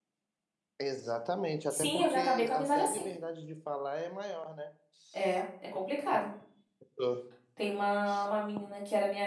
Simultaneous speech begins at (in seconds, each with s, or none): 1.7 s